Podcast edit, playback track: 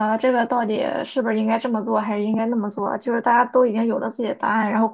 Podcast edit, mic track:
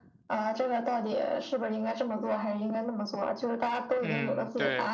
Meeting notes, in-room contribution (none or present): present